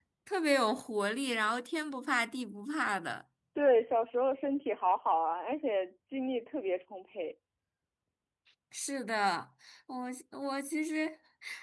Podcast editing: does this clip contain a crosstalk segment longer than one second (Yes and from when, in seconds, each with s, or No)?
No